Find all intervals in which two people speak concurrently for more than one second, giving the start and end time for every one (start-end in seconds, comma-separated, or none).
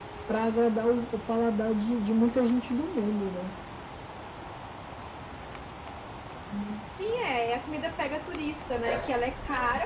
none